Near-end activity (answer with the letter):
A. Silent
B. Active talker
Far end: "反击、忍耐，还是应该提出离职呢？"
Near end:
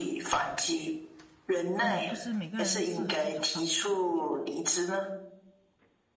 B